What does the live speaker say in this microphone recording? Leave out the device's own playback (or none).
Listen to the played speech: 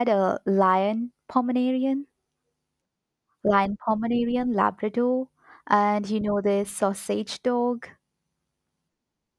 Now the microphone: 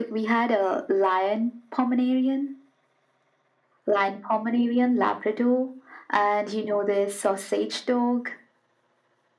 none